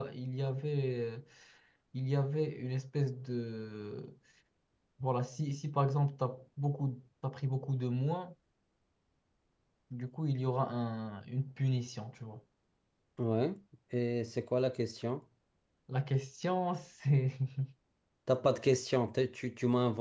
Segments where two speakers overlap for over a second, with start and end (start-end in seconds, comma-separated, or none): none